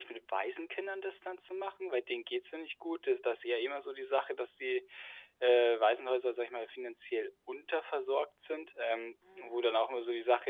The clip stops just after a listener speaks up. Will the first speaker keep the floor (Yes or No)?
Yes